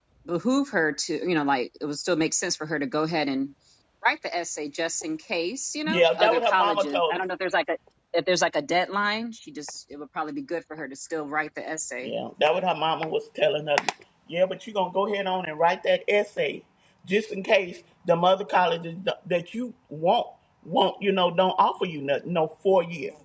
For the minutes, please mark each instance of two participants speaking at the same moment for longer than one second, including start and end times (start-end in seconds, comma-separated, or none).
5.9-7.2